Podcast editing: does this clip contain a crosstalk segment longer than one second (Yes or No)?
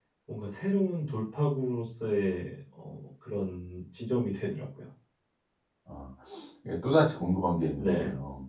No